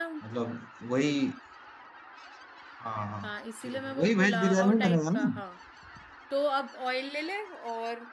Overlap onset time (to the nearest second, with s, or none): 4 s